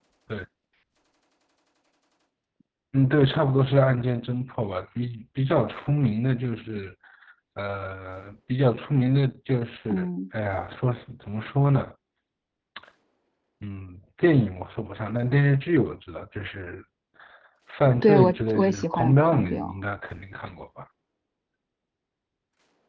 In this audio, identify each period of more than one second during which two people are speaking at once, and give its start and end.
18.0-19.7

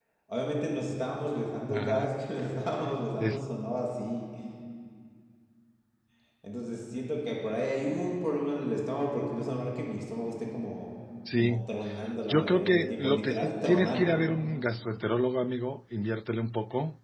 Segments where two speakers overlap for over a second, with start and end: 12.3-14.2

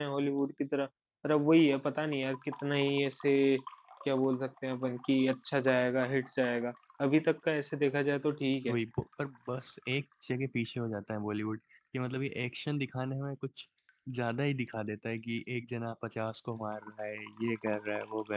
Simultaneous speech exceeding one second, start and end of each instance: none

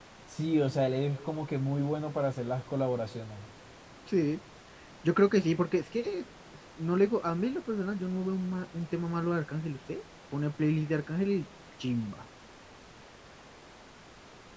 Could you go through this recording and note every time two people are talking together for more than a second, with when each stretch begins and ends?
none

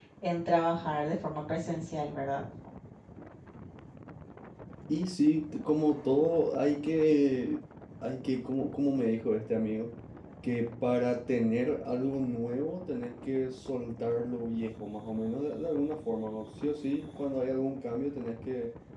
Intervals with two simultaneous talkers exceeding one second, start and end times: none

